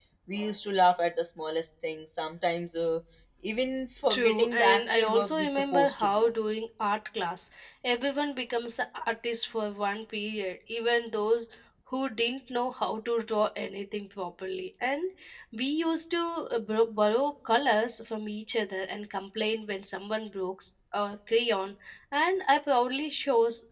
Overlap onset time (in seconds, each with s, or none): 4.1 s